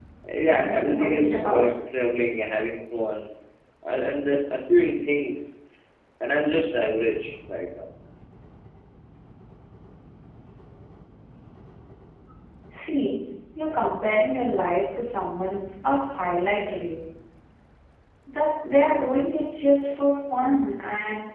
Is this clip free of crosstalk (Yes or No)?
No